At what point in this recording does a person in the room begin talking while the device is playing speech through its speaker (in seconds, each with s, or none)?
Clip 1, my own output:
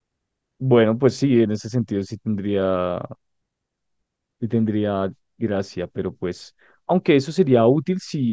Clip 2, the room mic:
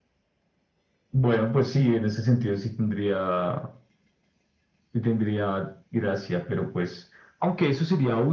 none